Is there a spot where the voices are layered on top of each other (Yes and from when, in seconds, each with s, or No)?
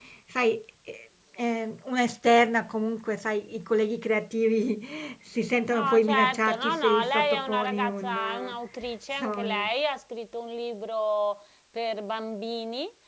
Yes, from 5.7 s